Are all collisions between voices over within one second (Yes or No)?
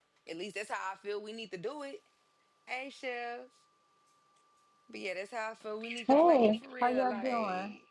No